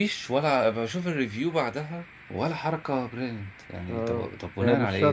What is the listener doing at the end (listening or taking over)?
taking over